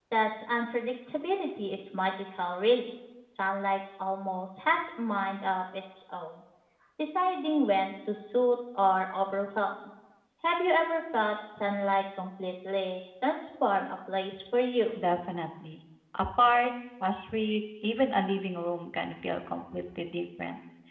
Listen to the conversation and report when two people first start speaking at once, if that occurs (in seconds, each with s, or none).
none